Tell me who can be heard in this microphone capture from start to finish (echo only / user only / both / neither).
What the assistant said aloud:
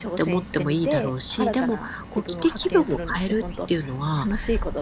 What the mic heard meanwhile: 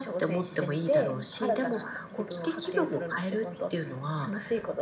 both